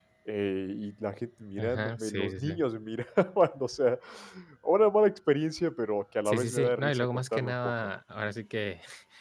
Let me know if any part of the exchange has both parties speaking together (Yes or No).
Yes